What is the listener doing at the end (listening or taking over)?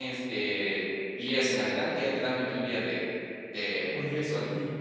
taking over